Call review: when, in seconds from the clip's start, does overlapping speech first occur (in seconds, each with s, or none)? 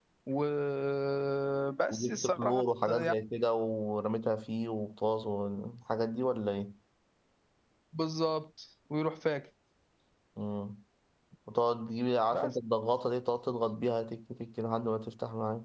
1.9 s